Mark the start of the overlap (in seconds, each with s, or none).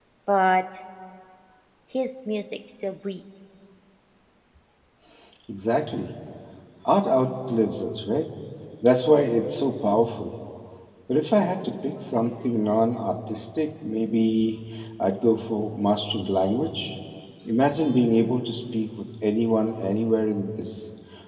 none